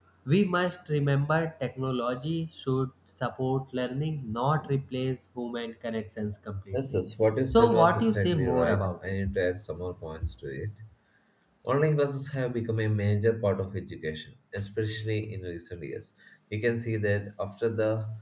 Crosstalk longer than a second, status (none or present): present